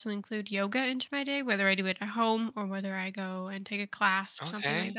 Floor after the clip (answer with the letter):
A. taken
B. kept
A